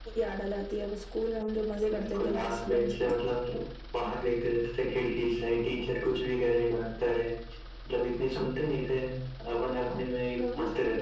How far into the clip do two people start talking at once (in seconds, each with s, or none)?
1.9 s